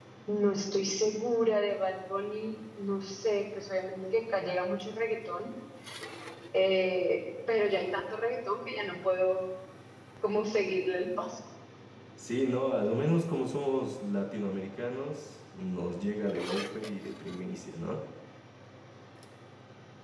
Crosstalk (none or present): none